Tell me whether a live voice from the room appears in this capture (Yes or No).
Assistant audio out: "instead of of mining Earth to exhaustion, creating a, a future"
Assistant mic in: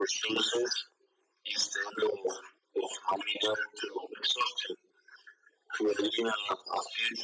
No